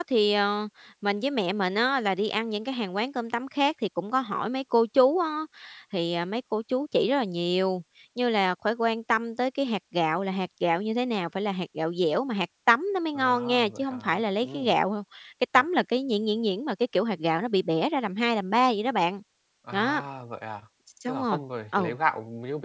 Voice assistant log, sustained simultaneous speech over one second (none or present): present